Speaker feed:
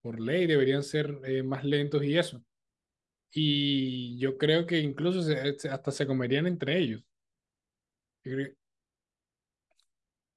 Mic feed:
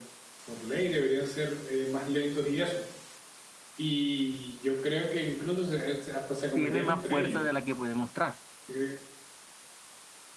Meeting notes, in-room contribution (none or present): present